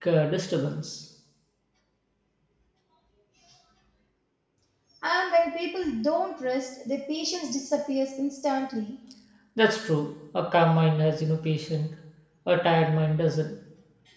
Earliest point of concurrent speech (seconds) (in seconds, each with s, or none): none